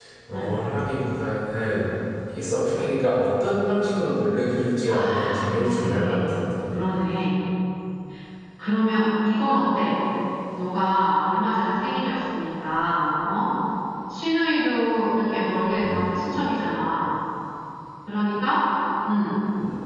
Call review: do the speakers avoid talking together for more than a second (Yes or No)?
No